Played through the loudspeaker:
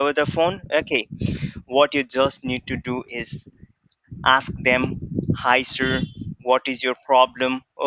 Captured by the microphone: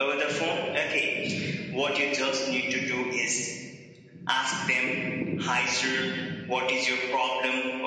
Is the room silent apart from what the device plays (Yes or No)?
Yes